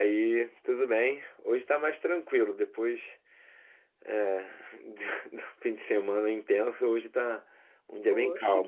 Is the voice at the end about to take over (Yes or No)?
Yes